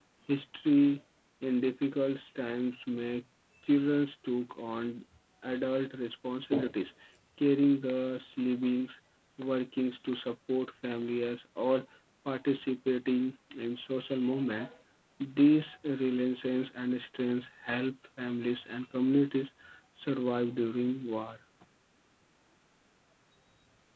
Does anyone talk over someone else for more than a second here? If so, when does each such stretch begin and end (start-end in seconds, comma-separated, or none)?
none